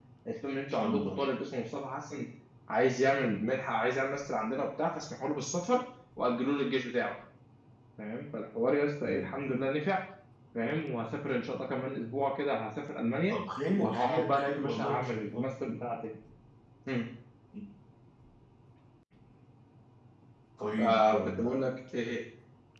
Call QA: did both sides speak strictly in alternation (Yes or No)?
No